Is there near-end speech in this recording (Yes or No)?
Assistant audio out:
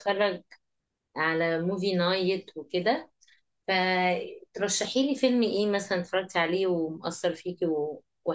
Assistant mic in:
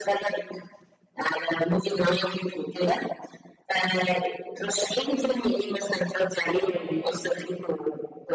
Yes